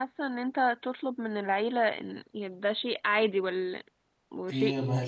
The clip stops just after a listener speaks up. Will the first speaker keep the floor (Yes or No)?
No